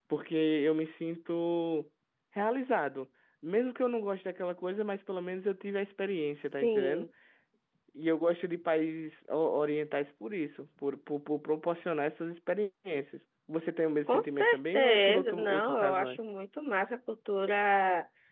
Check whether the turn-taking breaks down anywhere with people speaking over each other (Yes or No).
Yes